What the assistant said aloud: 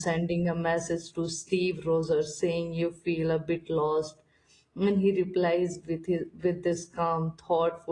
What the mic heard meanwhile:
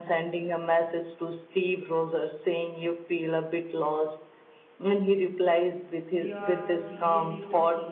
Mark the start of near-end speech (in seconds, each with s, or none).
6.1 s